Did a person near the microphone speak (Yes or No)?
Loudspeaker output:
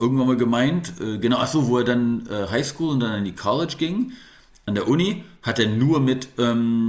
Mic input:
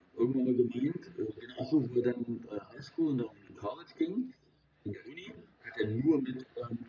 No